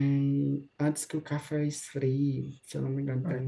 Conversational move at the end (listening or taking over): taking over